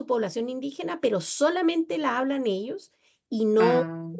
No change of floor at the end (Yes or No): Yes